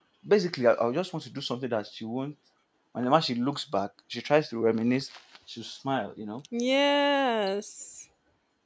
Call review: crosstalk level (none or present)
none